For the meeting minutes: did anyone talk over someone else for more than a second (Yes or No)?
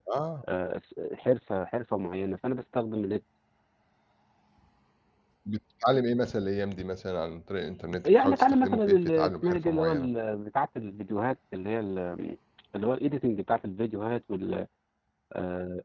Yes